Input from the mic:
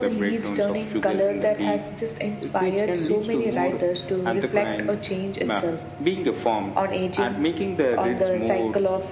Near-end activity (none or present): none